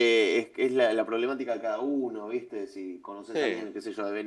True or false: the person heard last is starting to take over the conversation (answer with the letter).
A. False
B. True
A